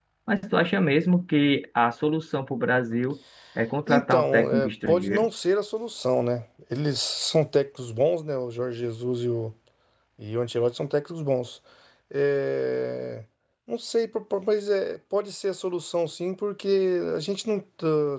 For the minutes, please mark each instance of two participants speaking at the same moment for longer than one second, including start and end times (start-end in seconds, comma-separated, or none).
3.9-5.3